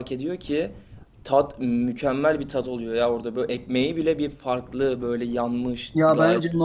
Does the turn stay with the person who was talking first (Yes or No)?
No